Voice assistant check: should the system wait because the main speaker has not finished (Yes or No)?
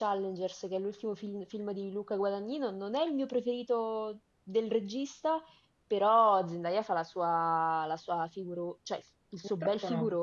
No